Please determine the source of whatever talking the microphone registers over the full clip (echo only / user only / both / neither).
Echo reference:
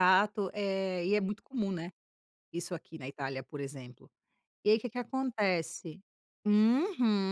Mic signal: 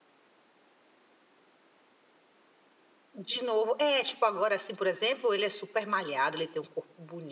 user only